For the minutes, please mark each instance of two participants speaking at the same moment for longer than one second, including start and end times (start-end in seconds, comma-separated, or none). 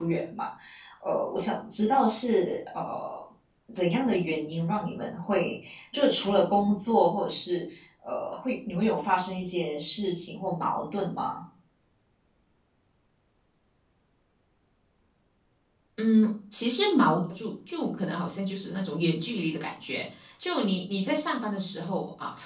none